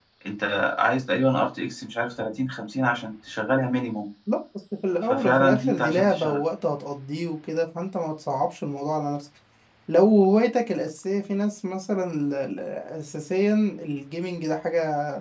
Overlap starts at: 5.1 s

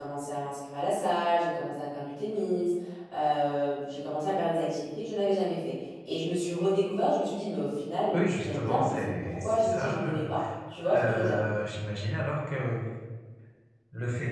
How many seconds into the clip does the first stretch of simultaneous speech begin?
8.1 s

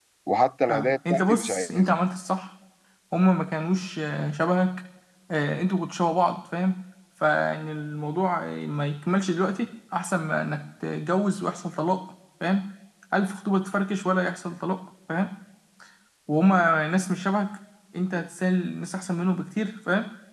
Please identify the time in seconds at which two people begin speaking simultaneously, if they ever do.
0.7 s

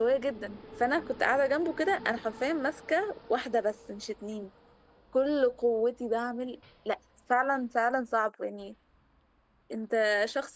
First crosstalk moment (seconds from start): none

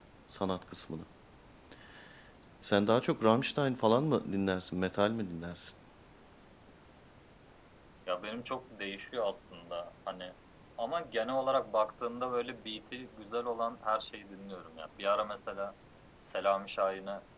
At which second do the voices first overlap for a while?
none

